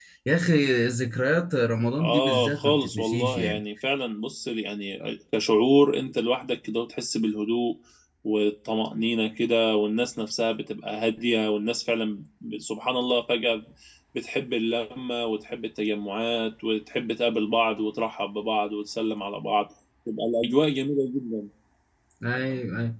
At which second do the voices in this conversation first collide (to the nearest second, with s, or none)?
2 s